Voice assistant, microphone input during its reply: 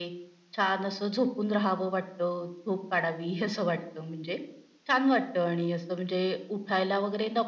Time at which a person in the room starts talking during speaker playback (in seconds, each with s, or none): none